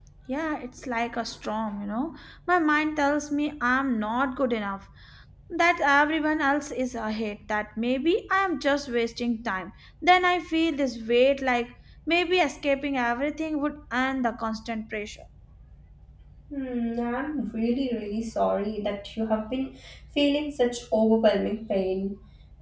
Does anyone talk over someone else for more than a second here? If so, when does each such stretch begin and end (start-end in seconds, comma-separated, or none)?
none